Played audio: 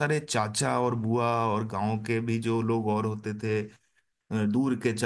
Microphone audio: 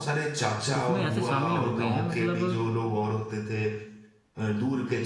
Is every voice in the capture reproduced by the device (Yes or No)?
No